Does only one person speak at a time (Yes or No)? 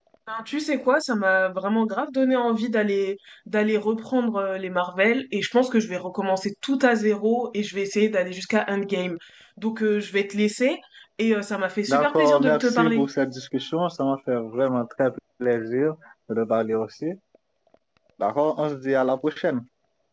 No